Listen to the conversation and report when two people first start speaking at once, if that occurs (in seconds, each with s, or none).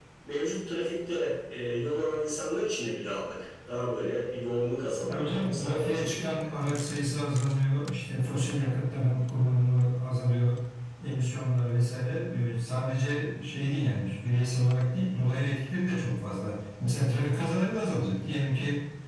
5.1 s